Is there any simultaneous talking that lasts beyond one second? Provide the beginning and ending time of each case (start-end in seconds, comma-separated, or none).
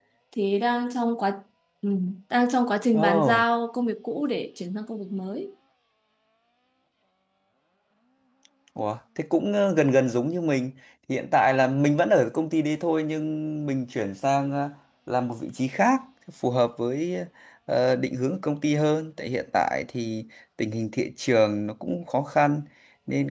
none